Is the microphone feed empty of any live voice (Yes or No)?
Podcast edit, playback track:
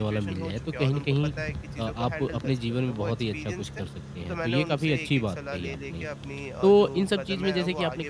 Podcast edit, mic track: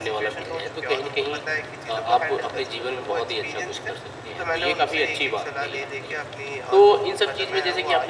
Yes